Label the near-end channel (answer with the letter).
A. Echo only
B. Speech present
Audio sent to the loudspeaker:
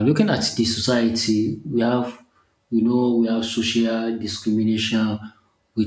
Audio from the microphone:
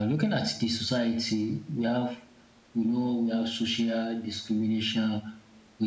A